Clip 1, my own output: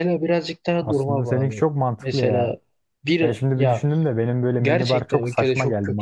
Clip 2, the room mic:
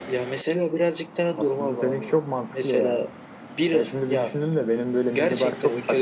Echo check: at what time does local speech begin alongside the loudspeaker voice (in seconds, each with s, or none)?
none